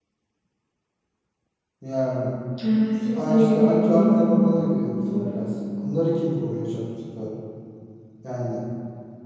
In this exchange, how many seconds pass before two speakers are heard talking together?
3.1 s

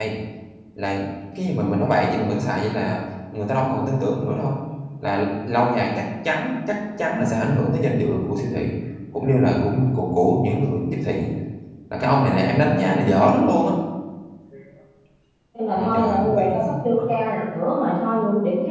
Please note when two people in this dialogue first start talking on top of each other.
15.8 s

